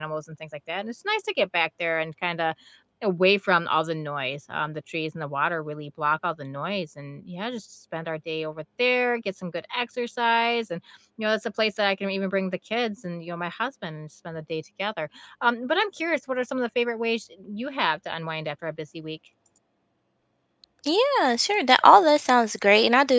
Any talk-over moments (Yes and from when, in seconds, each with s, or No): No